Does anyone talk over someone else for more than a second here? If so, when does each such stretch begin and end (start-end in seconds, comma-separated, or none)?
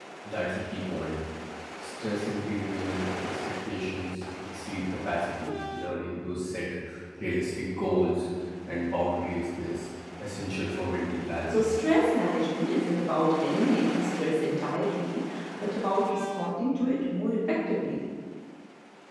none